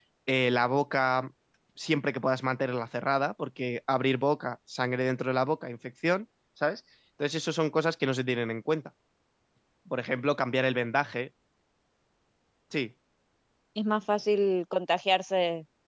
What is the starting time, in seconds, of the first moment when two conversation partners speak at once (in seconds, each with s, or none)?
none